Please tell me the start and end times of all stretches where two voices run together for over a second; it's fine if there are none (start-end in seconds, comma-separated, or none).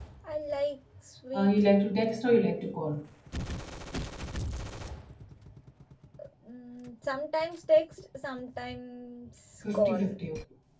none